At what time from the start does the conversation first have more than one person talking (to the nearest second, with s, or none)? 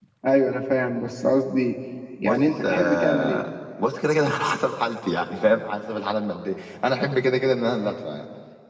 2 s